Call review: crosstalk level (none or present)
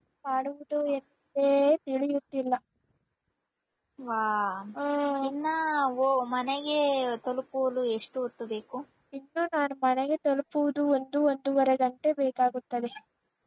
none